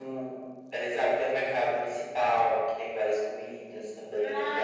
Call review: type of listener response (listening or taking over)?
taking over